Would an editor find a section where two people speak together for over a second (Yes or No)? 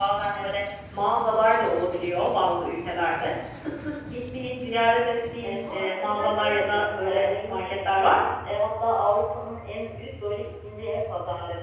Yes